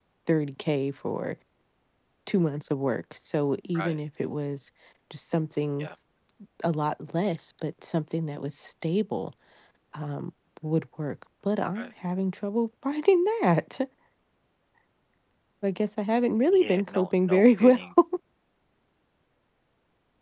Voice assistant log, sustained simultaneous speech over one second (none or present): present